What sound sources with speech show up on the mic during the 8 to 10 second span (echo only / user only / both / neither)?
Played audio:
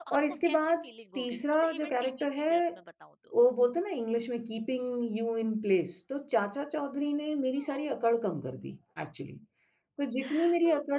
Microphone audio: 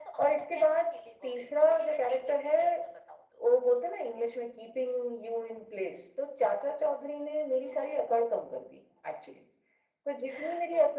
echo only